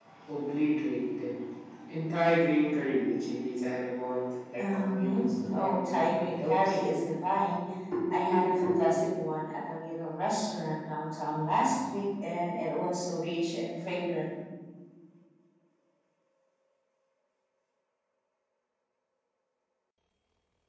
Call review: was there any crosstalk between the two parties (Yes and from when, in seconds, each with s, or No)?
Yes, from 4.6 s